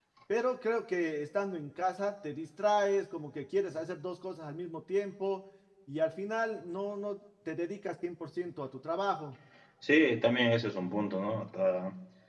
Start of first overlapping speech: none

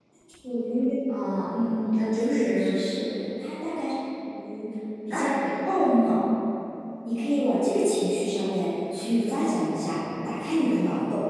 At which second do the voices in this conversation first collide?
2 s

